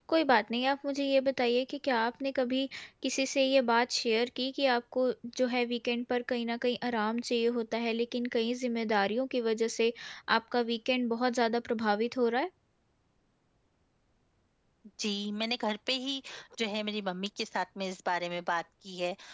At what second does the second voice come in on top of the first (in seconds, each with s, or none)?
none